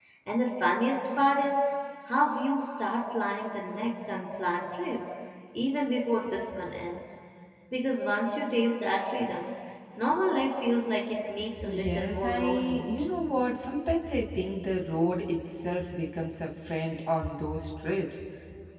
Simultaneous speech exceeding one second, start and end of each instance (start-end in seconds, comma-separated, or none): 11.7-12.9